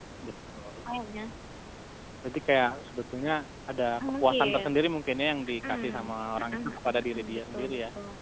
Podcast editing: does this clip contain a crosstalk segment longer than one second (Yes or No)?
Yes